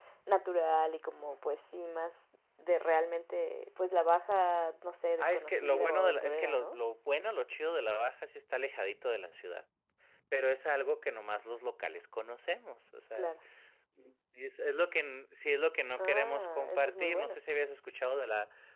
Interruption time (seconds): 5.2 s

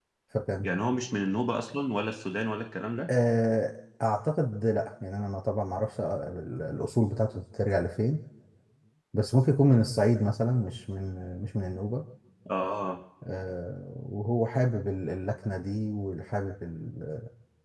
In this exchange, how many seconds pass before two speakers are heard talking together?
none

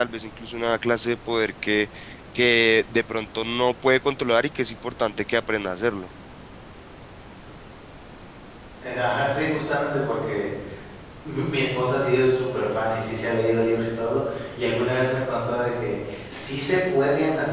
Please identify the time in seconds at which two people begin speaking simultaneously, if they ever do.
none

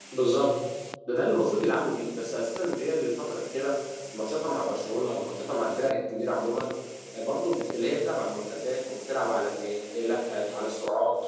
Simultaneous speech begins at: none

